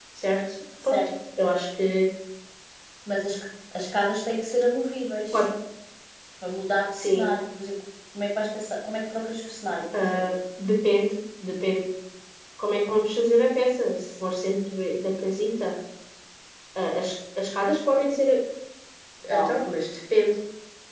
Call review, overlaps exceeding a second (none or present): none